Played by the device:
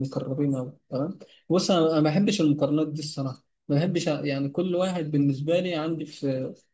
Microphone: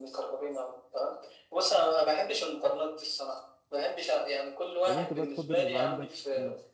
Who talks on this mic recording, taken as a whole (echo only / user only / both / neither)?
both